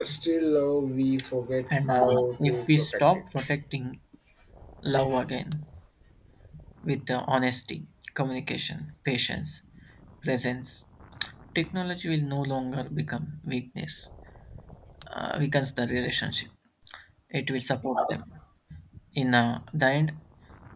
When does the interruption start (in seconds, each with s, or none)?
1.7 s